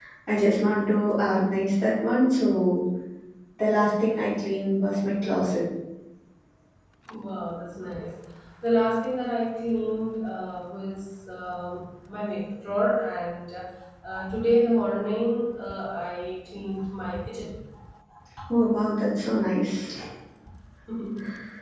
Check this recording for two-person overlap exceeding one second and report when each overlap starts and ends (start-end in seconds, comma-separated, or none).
none